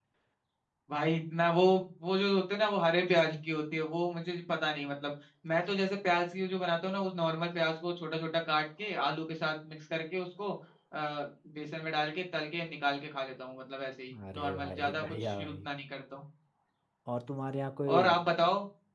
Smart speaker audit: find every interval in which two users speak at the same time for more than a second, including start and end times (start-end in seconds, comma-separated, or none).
14.3-15.7